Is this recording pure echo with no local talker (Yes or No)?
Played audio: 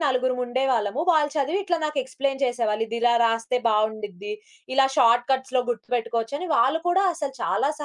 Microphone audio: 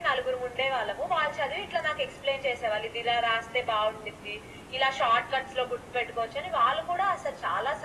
Yes